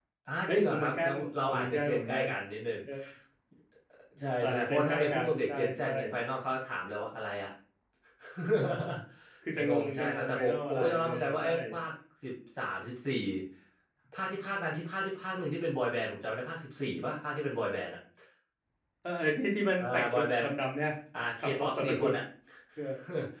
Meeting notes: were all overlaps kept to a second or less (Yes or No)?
No